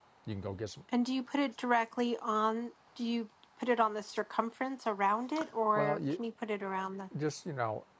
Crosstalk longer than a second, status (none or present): none